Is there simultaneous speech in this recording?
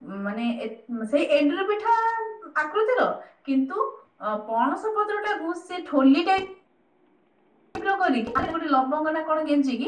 No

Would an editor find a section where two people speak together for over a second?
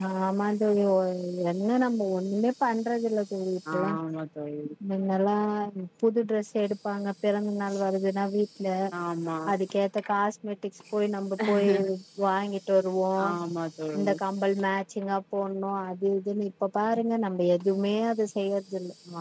No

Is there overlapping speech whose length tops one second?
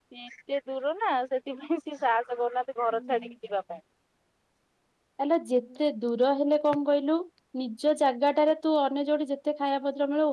No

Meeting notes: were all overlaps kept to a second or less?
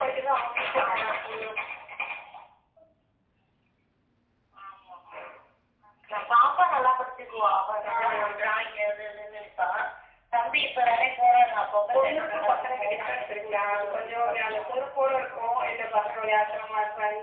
No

